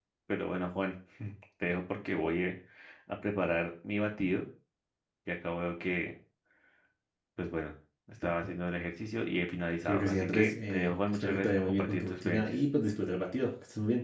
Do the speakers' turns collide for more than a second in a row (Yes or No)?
Yes